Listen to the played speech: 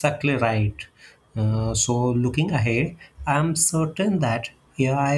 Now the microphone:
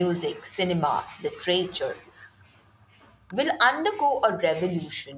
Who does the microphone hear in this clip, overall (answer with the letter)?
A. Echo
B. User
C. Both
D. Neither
B